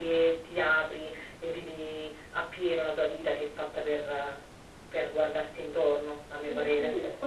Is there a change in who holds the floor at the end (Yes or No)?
Yes